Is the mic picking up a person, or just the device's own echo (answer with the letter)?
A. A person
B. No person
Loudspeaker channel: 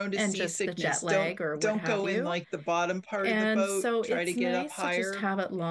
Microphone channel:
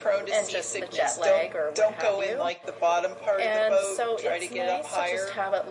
B